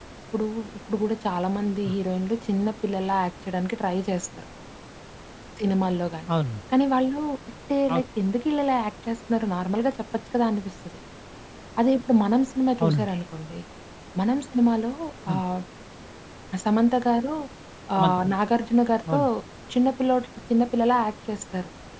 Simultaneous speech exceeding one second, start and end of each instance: none

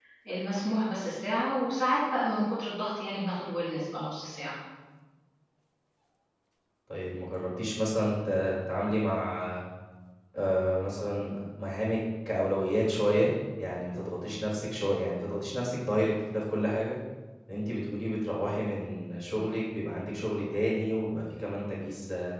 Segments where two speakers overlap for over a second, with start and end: none

